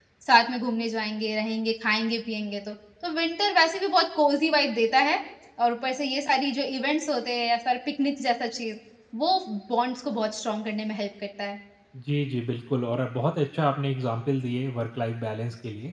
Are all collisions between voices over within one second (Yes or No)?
Yes